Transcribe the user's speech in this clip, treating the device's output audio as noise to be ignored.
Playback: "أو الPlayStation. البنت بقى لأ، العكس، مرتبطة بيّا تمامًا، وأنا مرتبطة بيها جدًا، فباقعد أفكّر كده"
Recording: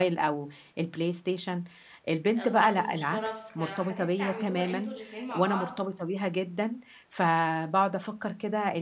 آآ وقت مشترك، آه، حاجات تعملوها أنتم الاتنين مع بعض،

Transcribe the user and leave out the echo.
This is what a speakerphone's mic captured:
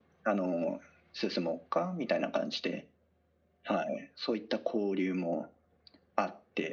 none

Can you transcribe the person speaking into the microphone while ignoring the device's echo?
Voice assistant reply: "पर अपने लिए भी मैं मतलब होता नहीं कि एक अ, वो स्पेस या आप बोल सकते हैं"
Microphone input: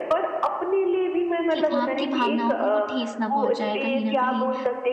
कि आपकी भावनाओं को वो ठेस ना पहुंचाए कहीं ना कहीं

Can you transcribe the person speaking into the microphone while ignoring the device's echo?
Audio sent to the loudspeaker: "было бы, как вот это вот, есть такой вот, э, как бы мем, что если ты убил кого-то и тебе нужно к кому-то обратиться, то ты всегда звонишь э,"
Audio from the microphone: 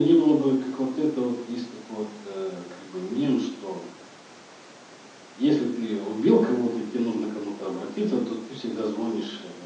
none

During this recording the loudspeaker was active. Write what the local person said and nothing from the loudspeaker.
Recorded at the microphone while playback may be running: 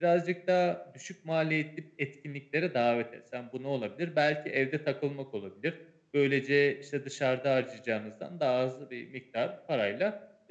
none

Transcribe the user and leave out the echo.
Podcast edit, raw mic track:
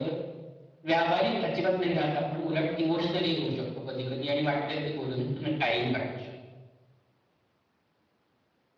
none

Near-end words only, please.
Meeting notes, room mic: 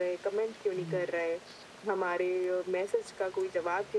हुँ।

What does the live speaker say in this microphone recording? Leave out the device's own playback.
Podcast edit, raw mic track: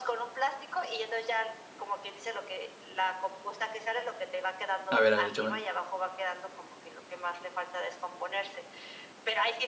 a ver, a ver, échame.

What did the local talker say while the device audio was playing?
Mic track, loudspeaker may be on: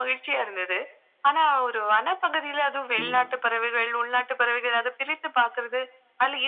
ம்.

